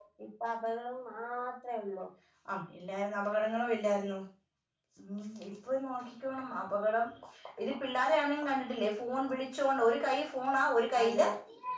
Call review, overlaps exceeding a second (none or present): none